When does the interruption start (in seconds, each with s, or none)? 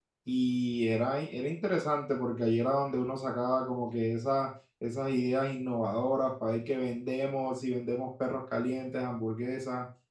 none